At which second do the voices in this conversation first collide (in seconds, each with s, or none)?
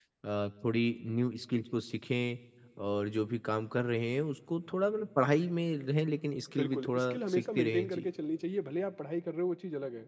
6.6 s